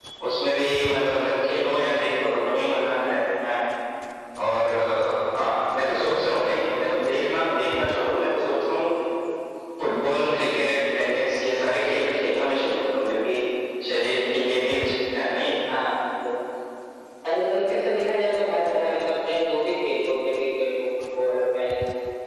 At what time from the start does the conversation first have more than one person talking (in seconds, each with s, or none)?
none